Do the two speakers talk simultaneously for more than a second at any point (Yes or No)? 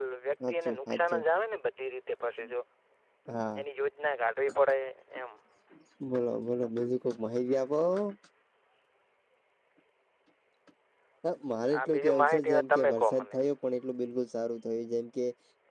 Yes